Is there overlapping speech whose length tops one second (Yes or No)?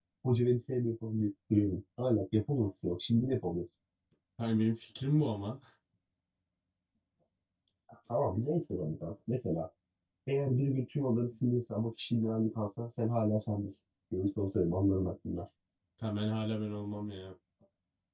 No